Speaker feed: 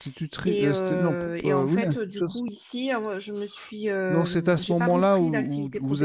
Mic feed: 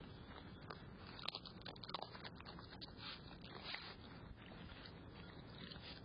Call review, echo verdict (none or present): none